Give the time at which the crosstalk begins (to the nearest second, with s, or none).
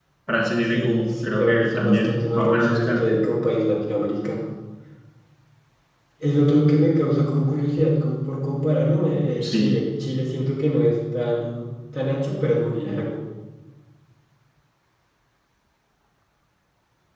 1 s